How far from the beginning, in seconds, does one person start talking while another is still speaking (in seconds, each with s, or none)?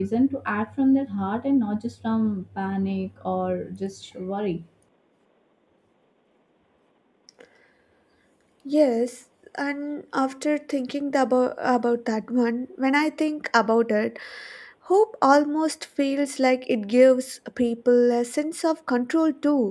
none